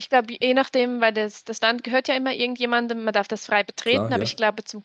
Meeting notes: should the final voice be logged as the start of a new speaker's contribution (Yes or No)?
No